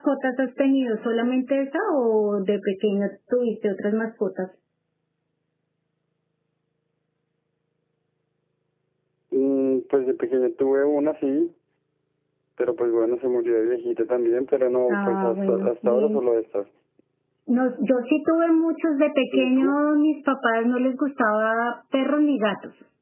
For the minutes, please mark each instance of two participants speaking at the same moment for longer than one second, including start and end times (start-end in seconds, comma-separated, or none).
14.9-16.2